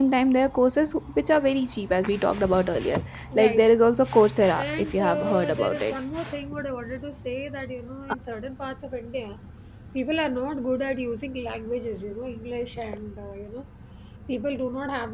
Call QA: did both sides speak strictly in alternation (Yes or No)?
No